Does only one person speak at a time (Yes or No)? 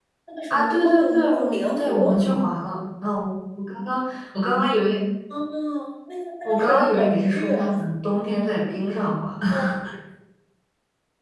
No